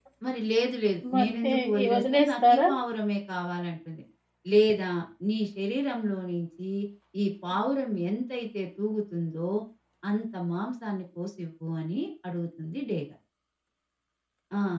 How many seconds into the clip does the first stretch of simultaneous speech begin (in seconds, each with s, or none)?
1.1 s